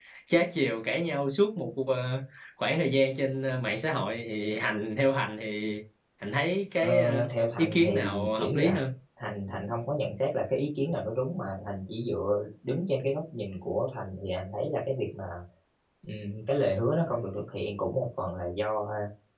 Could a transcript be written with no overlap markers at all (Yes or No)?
No